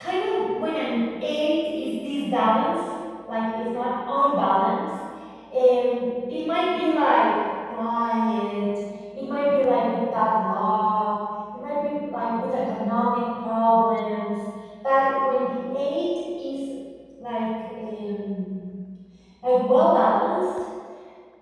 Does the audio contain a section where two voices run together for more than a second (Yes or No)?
No